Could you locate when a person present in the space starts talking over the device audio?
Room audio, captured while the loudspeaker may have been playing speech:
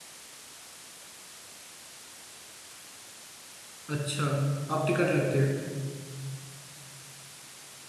3.9 s

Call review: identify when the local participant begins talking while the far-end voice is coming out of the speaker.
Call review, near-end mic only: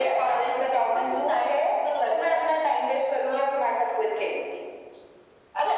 none

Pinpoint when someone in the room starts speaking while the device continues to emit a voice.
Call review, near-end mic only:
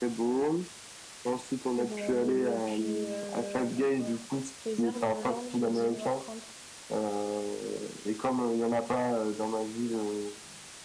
1.8 s

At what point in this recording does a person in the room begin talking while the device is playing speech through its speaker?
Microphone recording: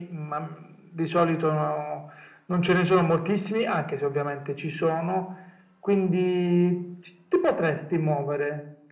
none

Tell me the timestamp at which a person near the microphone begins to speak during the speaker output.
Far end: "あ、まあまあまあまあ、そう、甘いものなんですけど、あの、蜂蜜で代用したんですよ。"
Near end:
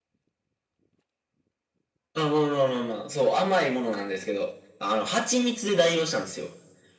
none

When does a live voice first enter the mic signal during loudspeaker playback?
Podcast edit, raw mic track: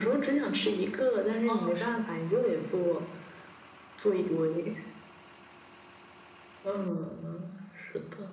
1.4 s

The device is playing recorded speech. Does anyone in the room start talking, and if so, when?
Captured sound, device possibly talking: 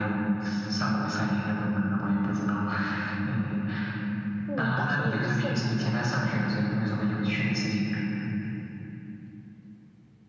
4.5 s

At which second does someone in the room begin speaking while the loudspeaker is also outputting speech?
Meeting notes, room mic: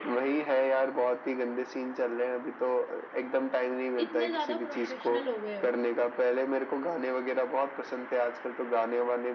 4.0 s

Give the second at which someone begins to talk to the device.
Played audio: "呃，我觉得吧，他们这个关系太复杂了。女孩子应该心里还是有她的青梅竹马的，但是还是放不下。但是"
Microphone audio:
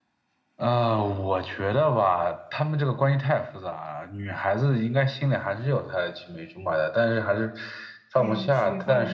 8.1 s

